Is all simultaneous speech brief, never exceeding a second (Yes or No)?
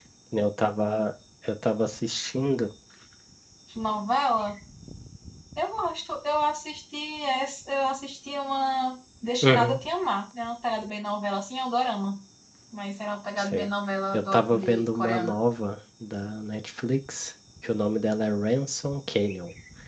No